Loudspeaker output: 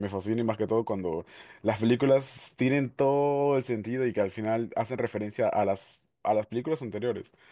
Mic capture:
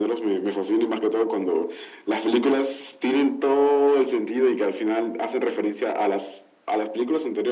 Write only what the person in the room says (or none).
none